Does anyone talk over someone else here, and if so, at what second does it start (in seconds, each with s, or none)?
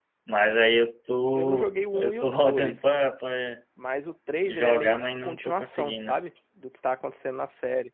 1.3 s